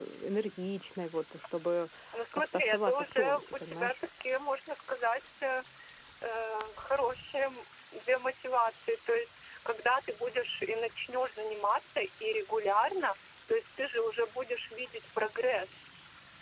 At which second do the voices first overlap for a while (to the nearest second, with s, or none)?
2 s